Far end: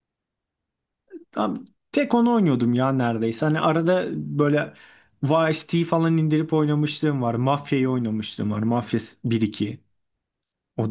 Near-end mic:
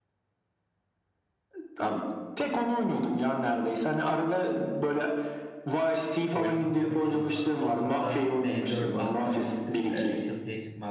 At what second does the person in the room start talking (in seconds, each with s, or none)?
6.3 s